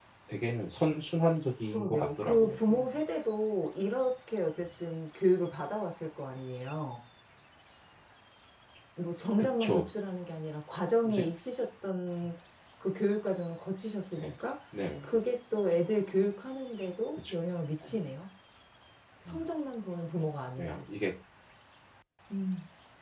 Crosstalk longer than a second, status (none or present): present